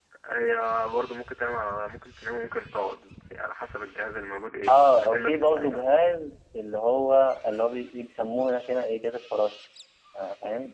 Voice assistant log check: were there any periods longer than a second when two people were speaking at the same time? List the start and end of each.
4.7-6.0

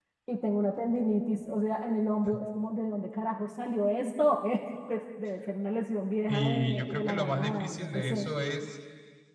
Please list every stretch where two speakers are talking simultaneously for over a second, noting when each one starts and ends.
6.3-8.3

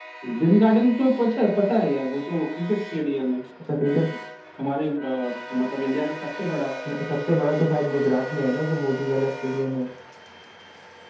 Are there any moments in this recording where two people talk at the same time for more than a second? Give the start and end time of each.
none

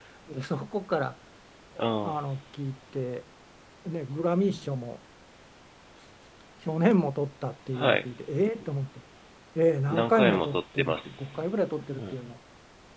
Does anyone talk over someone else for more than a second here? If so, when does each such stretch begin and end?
9.9-11.3

